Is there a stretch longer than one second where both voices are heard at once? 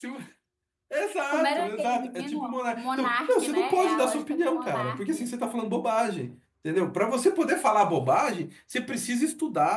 Yes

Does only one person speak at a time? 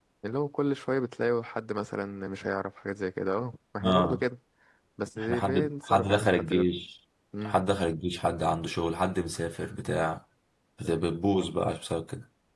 No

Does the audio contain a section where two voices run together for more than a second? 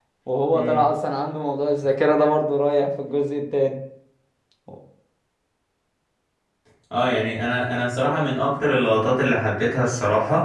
No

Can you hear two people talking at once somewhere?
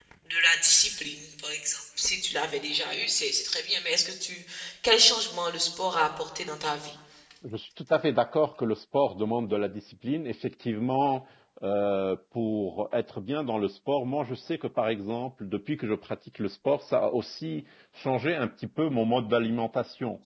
No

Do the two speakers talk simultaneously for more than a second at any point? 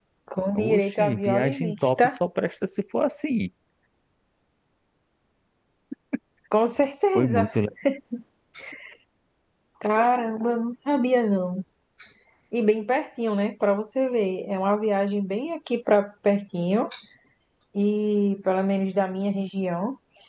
Yes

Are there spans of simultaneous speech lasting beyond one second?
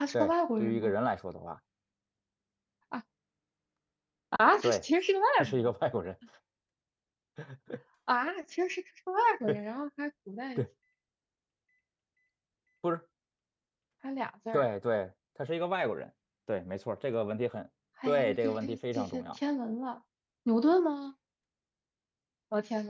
Yes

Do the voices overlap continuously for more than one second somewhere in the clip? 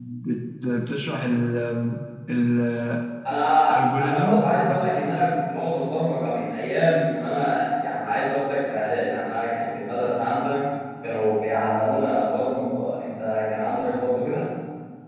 No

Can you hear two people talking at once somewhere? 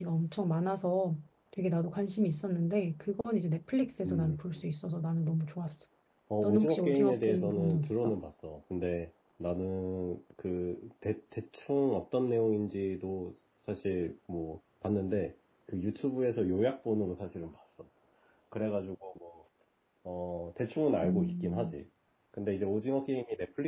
Yes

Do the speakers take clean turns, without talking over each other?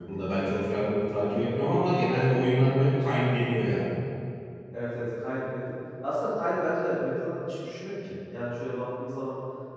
Yes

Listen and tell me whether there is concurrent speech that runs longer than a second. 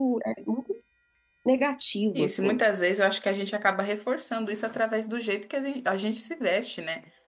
No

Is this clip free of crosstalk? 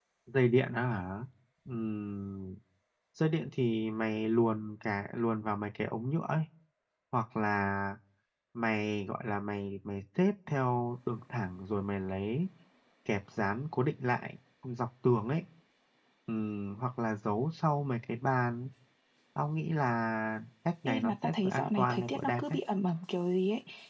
No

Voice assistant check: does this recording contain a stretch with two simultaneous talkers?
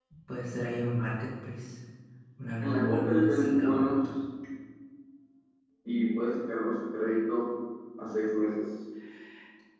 Yes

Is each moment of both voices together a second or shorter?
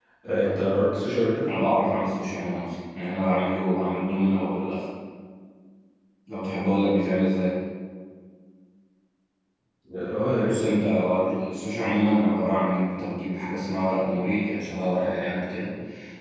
Yes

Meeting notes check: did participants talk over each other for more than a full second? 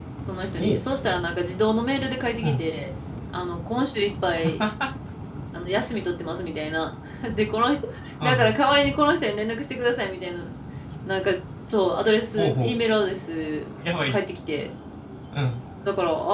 No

